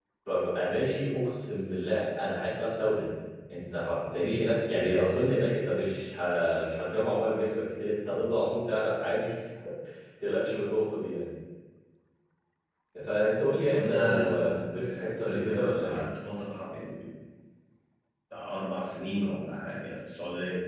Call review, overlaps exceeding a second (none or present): present